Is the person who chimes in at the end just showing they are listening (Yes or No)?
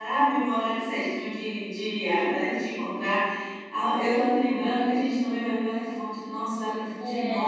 Yes